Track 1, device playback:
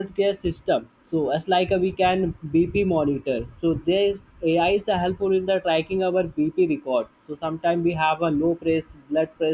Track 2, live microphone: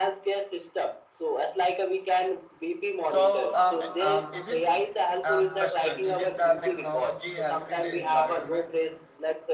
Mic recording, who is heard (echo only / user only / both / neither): both